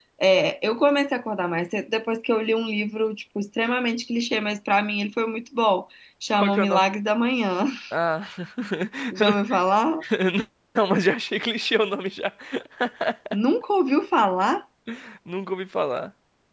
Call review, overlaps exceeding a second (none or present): none